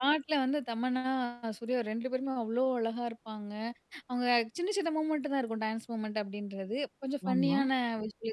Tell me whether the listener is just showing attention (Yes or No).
Yes